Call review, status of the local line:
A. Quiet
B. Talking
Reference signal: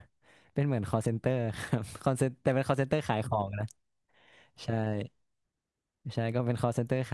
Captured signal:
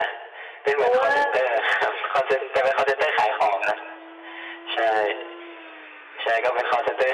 B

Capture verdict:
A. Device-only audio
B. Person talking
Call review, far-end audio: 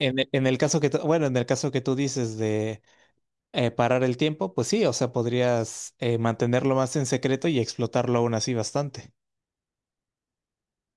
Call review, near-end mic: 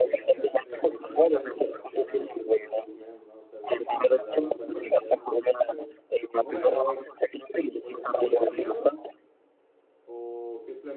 B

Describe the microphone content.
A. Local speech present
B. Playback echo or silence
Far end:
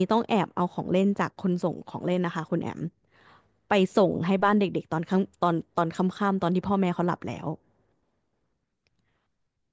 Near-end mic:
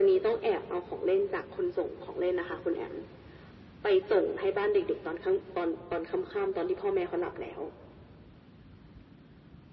B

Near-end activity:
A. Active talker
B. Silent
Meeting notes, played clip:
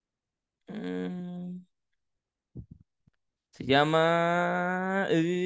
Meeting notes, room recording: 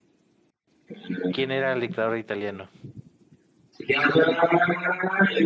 A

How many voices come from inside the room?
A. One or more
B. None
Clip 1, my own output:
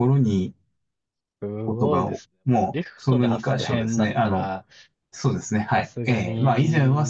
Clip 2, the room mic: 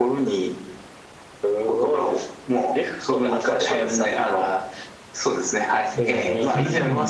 A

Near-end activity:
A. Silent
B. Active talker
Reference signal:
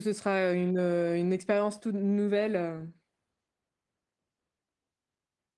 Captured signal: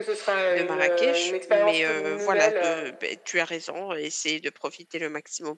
B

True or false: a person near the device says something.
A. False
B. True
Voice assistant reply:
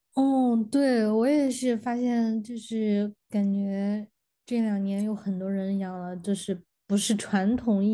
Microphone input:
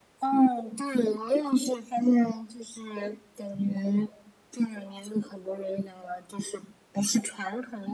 A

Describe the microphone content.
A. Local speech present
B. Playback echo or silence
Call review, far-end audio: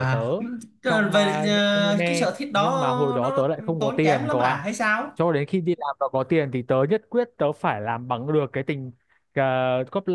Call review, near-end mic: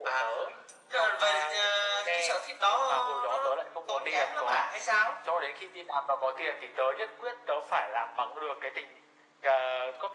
B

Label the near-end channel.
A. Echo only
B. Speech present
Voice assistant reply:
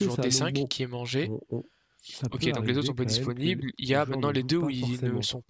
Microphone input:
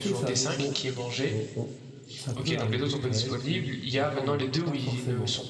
A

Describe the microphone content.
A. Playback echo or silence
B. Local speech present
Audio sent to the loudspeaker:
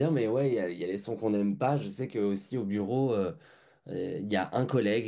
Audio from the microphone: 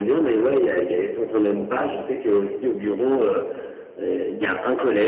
A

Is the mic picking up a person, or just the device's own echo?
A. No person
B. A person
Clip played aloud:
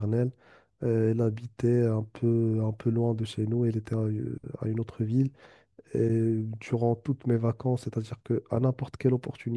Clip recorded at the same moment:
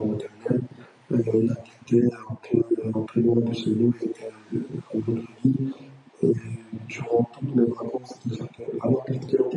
A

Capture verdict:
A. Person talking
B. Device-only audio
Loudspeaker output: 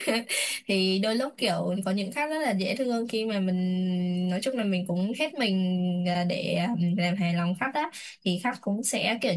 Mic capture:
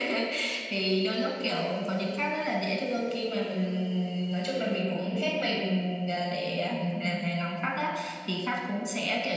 B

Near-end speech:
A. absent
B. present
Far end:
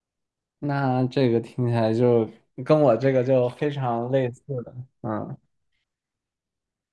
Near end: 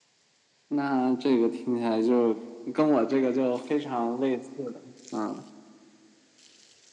A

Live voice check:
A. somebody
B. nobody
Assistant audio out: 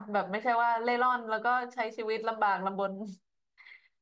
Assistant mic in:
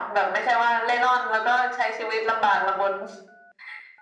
B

